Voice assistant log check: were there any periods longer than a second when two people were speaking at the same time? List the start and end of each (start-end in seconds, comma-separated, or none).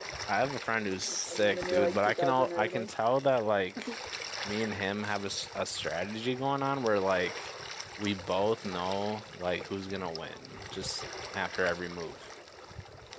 1.3-2.9